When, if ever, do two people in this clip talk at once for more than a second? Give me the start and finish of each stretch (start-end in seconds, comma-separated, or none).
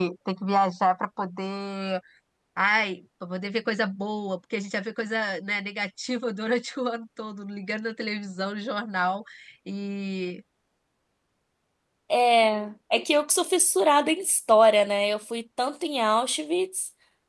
none